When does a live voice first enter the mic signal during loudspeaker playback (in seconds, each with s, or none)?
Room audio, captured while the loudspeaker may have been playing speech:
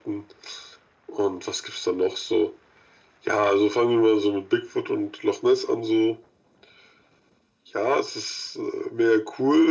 none